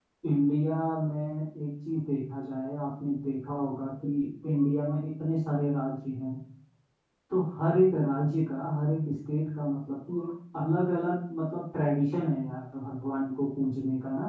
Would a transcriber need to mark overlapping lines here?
No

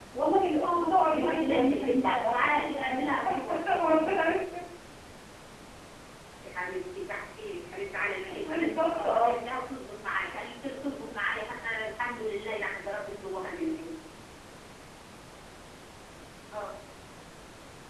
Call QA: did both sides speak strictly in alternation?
No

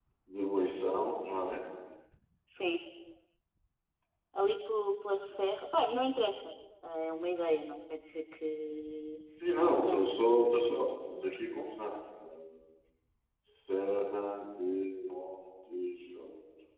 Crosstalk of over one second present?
No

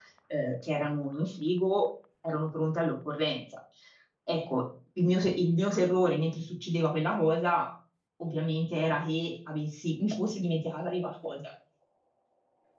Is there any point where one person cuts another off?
No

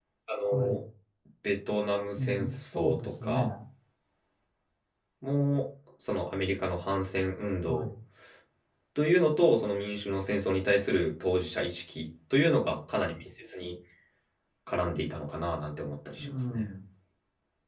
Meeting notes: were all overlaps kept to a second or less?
No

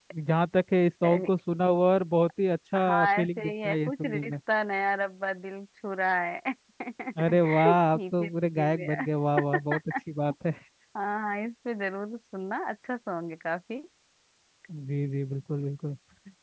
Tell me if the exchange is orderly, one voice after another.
No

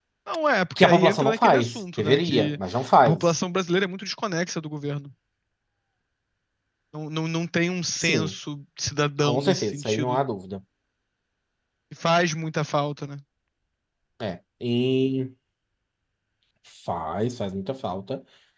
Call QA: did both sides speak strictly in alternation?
No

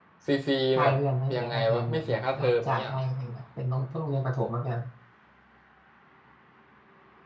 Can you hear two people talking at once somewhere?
Yes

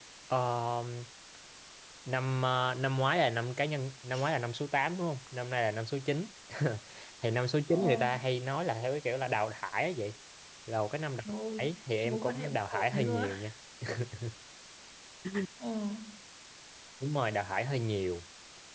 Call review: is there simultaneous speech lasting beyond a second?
Yes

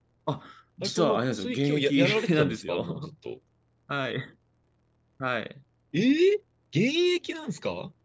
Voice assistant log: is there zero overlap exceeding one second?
No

